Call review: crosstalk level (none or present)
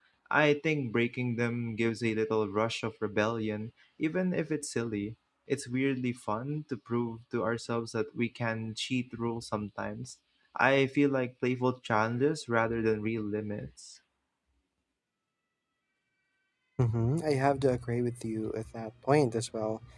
none